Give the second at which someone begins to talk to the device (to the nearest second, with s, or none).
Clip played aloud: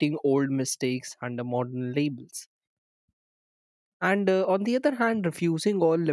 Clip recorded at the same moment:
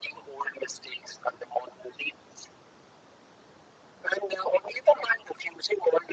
none